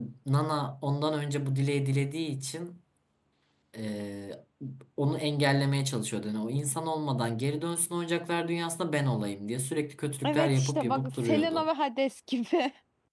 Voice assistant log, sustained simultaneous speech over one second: present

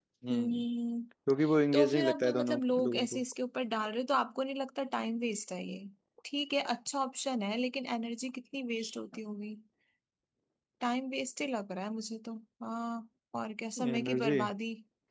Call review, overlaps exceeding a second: present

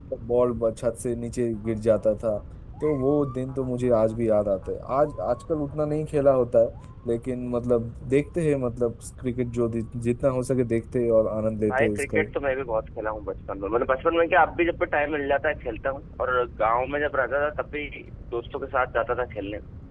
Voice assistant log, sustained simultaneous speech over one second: none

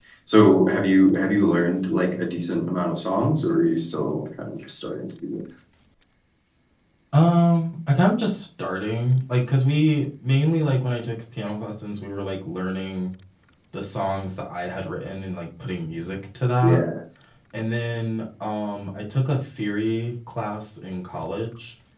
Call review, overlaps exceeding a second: none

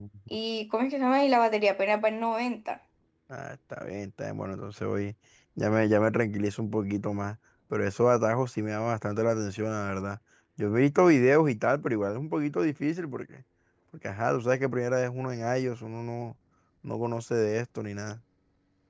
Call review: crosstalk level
none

